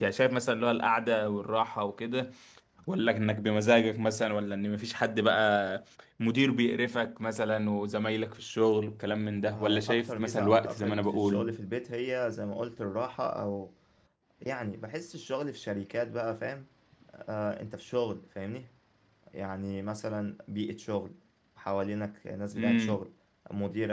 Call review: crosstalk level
present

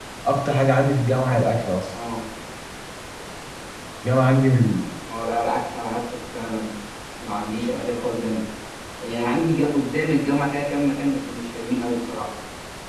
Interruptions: none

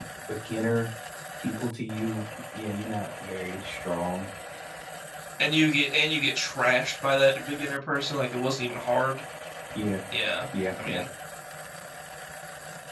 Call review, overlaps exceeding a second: none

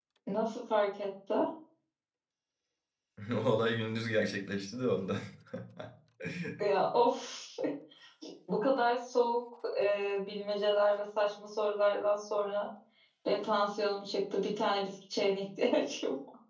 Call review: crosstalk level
none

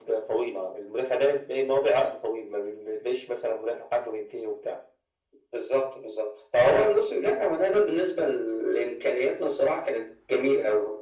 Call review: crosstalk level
none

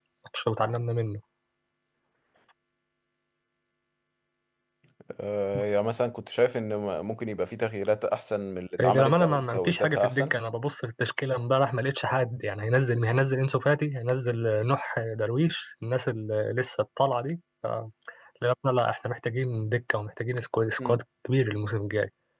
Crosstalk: present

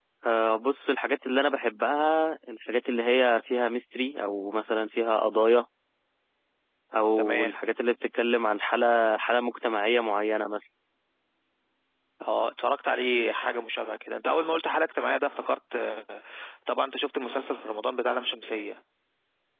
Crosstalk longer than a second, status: none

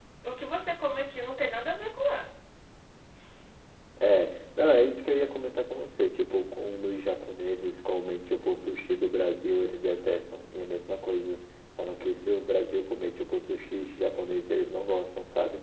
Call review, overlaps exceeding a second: none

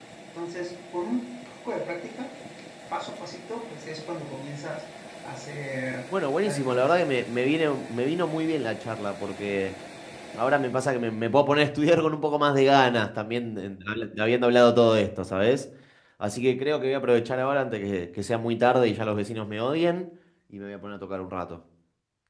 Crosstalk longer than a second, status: none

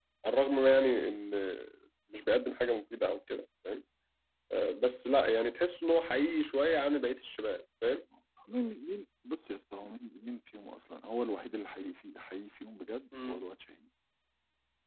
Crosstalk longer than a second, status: none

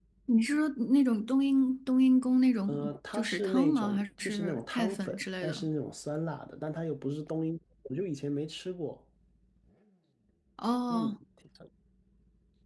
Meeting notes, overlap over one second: present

